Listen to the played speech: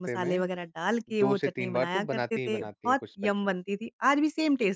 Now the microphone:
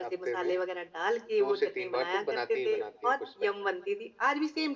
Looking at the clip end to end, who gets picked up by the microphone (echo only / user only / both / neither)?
echo only